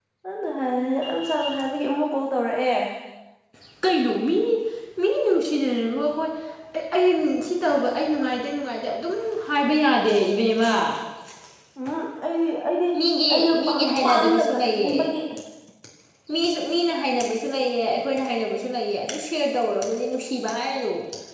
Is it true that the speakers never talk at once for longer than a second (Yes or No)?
No